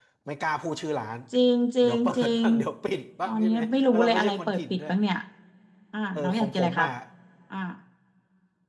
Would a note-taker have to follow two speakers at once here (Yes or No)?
Yes